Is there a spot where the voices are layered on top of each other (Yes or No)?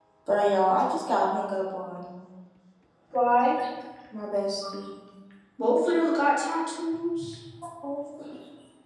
No